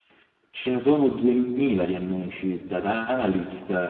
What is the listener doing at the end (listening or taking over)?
listening